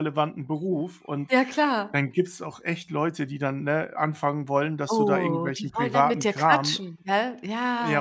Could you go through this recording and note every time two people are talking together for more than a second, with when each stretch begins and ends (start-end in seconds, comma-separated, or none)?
4.9-6.8